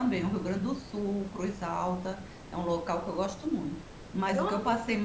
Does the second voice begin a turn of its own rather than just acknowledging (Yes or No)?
No